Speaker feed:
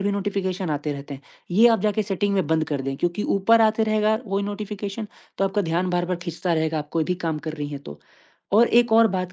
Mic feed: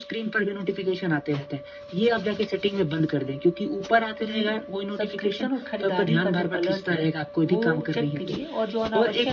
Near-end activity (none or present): present